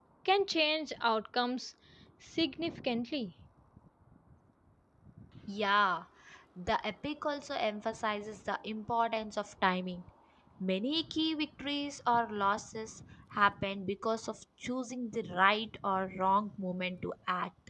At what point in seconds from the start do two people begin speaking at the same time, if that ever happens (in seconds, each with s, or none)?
none